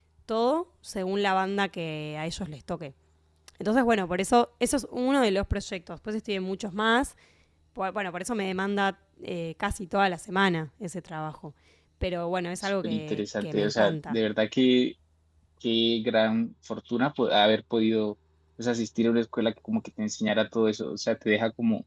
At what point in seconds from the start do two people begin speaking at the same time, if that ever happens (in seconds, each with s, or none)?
12.6 s